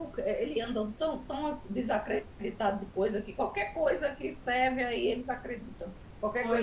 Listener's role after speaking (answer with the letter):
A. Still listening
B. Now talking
B